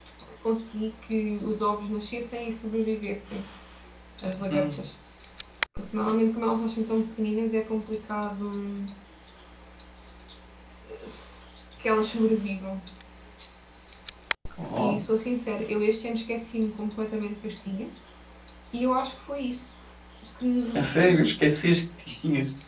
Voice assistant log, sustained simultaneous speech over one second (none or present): none